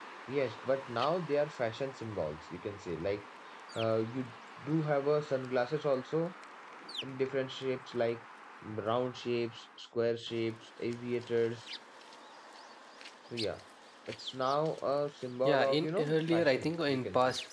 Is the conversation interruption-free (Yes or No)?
No